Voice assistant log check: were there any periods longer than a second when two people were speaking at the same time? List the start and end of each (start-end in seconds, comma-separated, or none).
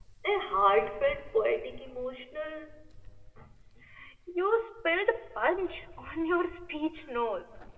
none